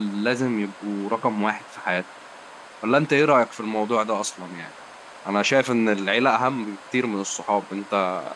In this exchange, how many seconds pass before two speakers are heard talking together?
none

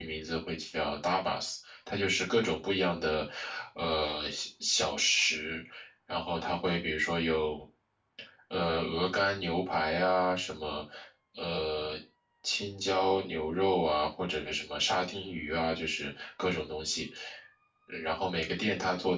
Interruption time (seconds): none

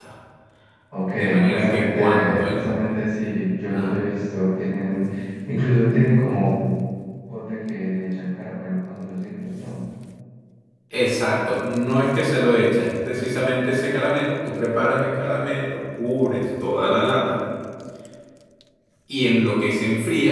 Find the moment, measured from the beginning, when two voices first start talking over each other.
1.1 s

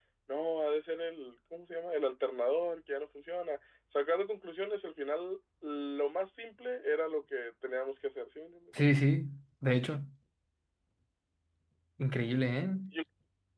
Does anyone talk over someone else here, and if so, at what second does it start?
none

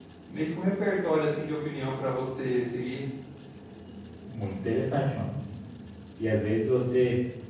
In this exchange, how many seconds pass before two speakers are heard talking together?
none

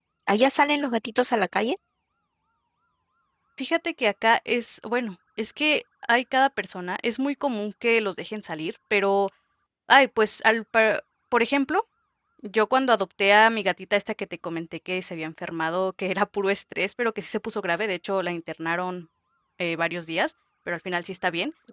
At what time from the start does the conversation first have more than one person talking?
none

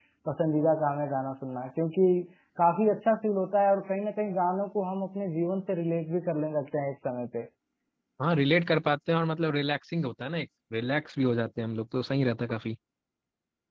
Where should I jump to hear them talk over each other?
none

